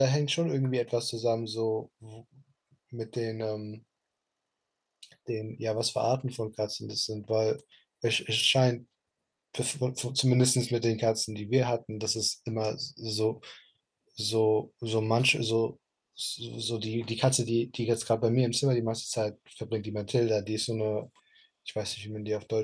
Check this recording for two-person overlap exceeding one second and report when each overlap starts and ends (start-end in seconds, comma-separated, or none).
none